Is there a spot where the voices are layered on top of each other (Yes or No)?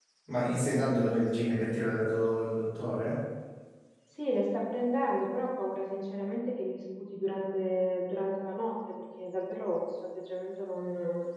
No